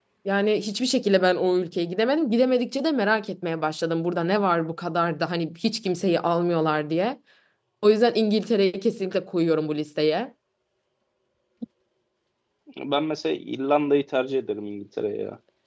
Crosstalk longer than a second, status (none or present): none